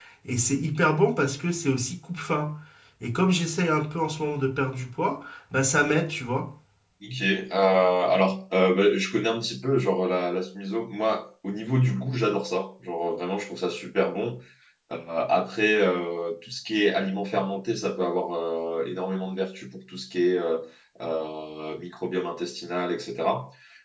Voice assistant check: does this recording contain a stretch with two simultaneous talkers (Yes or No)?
No